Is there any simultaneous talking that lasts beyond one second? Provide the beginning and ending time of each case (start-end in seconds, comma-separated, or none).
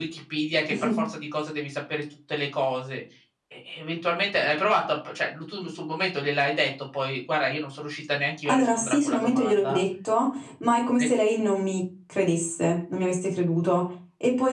8.4-9.8